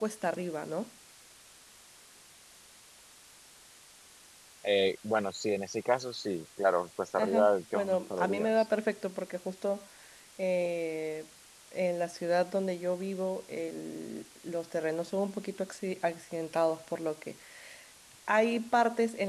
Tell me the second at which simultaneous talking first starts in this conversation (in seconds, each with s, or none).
7.2 s